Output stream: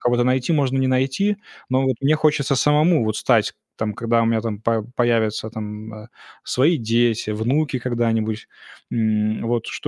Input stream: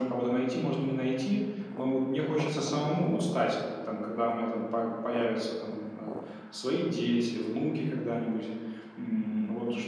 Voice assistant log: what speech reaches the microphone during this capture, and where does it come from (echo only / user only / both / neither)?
echo only